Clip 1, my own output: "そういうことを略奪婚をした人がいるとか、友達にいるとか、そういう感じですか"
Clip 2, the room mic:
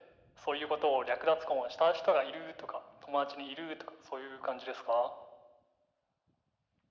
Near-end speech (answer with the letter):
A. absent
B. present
A